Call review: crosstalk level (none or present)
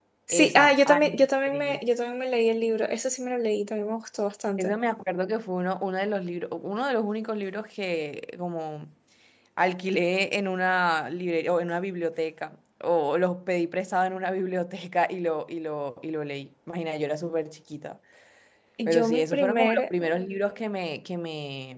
present